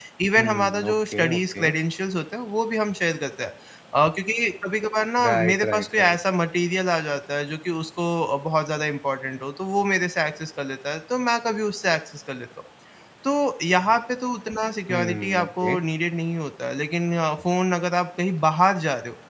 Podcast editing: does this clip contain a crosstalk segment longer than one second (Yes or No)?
Yes